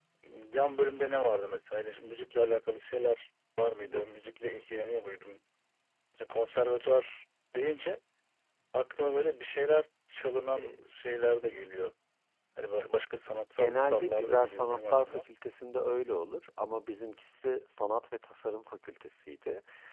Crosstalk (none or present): present